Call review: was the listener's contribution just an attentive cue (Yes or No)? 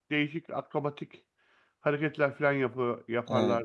No